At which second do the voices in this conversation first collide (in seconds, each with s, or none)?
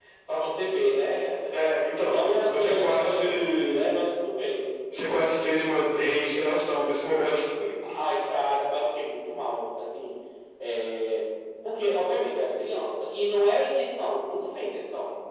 2.0 s